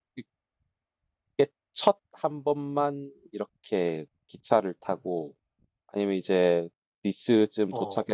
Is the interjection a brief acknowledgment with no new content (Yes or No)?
Yes